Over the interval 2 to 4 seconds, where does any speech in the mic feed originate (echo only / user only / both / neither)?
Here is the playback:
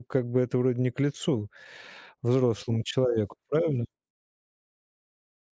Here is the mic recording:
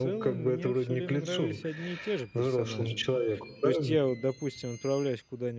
both